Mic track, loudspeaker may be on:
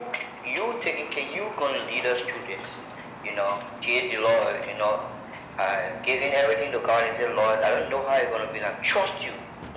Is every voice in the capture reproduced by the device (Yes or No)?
Yes